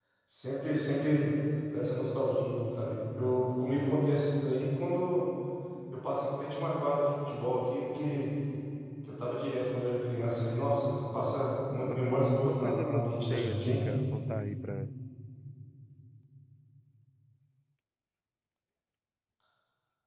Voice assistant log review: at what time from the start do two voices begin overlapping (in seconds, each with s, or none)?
11.8 s